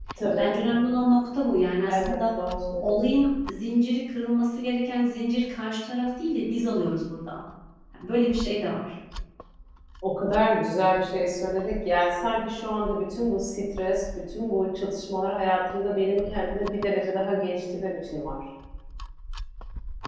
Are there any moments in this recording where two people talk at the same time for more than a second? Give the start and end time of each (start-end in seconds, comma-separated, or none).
none